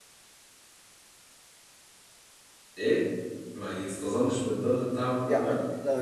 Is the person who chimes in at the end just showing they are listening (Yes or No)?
No